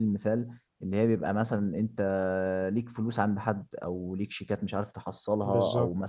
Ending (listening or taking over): listening